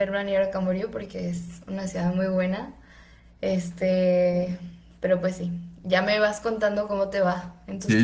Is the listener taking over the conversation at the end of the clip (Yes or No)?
Yes